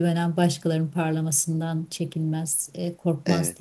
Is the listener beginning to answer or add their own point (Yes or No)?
No